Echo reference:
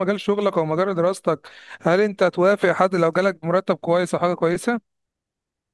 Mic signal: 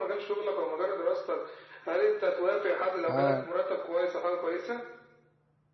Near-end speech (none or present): present